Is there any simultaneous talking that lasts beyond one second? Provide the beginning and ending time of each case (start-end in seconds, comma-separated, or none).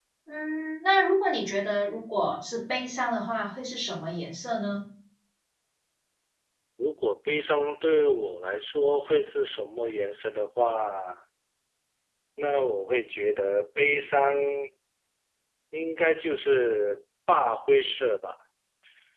none